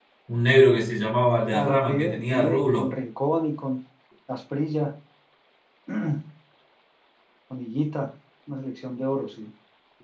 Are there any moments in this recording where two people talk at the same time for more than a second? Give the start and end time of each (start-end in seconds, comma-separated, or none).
1.5-2.9